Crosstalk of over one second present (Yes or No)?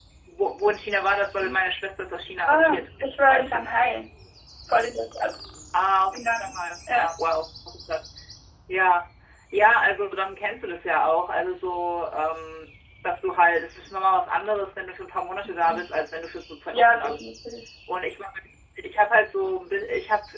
Yes